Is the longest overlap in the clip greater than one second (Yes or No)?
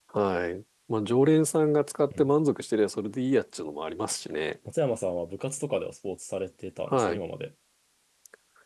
No